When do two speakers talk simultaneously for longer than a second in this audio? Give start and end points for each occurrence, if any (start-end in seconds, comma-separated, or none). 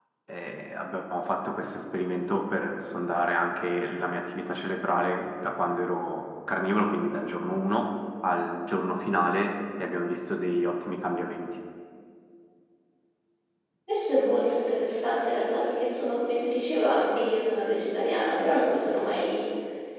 none